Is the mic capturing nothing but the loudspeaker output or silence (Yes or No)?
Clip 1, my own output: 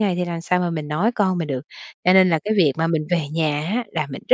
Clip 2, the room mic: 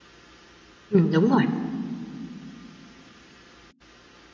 No